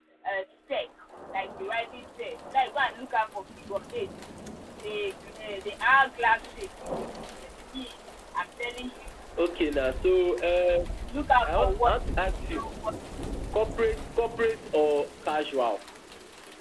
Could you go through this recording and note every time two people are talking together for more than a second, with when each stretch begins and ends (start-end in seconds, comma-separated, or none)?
none